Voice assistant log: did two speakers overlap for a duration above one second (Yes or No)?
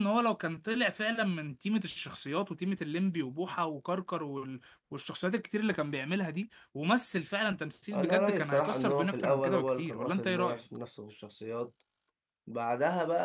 Yes